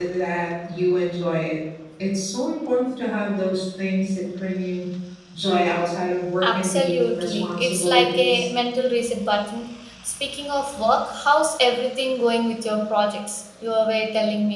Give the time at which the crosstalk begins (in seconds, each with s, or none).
6.4 s